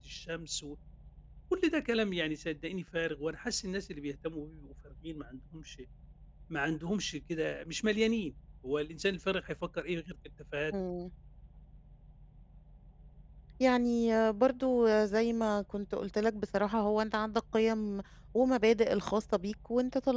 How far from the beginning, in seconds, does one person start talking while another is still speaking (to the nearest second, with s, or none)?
none